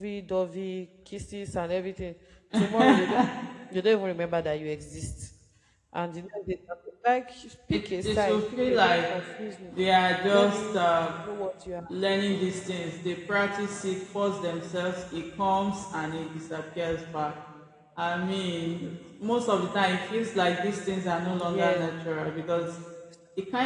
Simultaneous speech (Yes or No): Yes